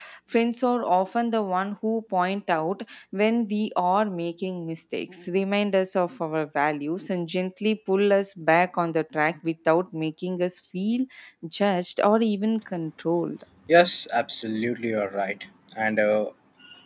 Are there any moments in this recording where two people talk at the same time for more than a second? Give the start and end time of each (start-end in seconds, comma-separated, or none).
none